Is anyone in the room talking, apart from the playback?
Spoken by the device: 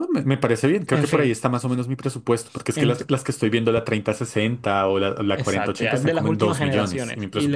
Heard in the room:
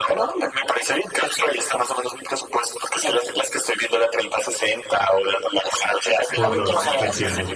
Yes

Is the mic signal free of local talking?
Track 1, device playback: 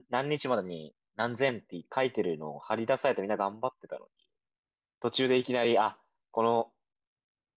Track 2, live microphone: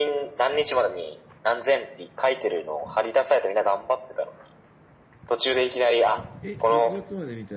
No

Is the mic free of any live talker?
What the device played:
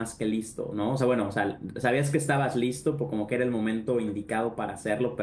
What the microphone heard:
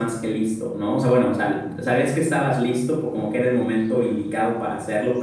Yes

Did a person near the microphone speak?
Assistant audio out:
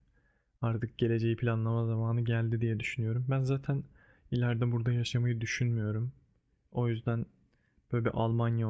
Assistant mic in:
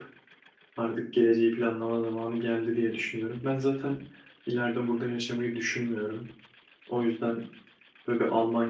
No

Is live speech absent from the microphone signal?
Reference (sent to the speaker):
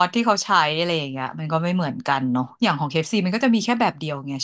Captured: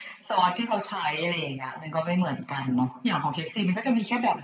Yes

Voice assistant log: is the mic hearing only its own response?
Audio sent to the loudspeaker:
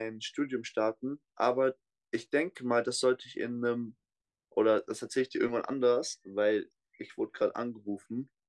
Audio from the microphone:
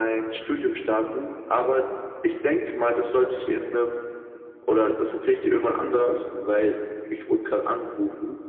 Yes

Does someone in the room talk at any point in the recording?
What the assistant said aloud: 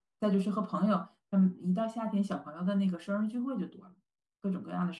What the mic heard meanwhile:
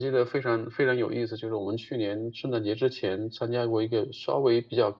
Yes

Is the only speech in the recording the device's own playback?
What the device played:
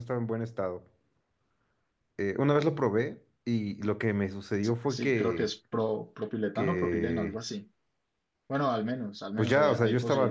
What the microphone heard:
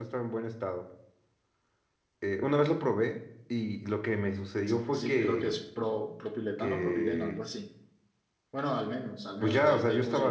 Yes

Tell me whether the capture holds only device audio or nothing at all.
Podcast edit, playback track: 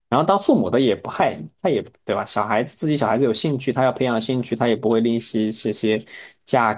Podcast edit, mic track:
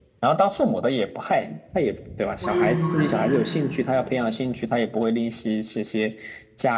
No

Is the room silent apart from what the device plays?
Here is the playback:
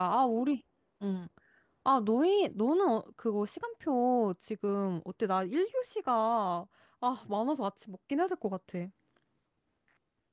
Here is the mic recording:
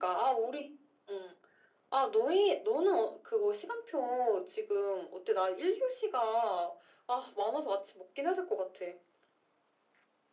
Yes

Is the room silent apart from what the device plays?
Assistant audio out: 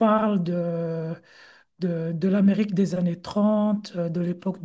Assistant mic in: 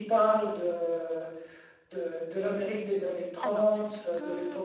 No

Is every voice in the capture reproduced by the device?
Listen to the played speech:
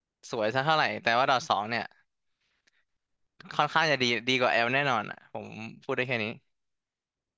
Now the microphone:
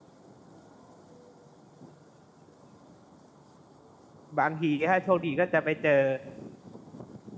No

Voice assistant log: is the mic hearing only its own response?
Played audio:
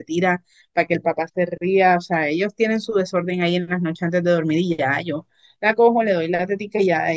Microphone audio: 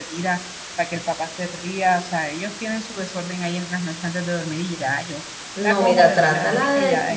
No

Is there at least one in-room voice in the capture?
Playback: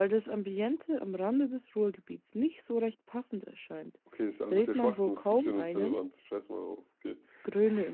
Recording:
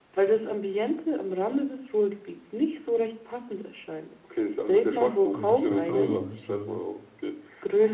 Yes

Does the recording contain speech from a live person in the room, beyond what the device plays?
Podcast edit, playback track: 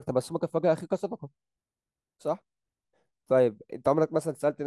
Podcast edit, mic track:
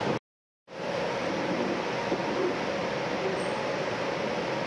No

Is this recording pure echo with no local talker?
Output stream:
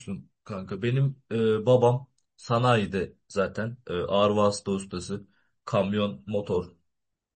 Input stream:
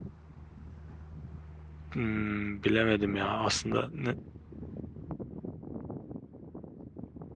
No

